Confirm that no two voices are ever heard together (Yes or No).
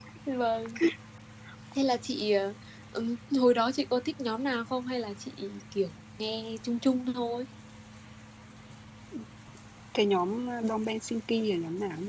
Yes